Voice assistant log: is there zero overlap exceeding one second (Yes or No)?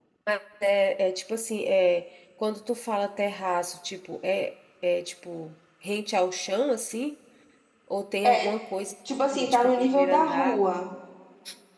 No